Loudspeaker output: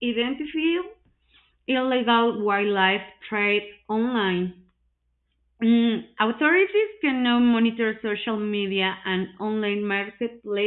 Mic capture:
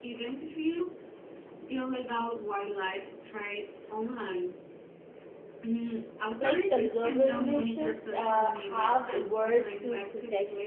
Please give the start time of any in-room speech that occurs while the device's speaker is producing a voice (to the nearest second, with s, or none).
6 s